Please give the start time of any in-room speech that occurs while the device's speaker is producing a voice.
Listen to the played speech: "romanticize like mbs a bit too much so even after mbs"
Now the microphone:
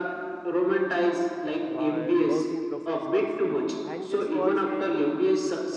1.6 s

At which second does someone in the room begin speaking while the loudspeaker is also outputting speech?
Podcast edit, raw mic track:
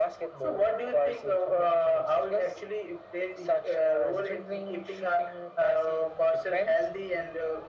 none

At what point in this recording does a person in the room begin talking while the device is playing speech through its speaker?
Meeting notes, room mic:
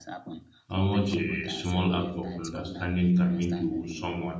0.7 s

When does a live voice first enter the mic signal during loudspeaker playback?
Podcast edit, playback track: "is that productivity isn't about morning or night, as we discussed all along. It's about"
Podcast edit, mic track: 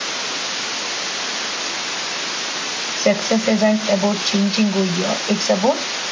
2.9 s

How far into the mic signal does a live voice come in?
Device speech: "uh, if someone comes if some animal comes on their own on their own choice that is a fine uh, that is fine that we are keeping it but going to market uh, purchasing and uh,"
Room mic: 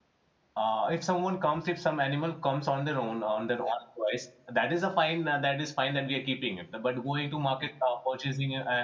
none

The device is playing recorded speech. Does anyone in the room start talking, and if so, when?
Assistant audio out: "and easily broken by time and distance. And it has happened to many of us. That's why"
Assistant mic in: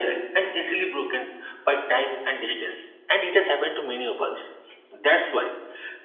none

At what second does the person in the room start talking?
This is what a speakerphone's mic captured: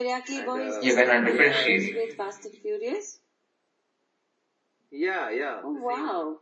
0.8 s

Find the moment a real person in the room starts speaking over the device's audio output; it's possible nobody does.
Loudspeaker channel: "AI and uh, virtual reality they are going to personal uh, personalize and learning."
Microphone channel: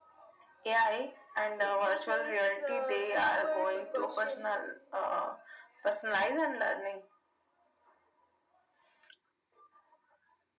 1.6 s

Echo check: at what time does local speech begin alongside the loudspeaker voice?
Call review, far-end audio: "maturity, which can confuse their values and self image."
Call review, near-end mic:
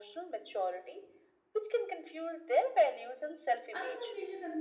3.7 s

